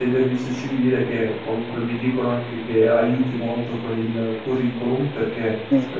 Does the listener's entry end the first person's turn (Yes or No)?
No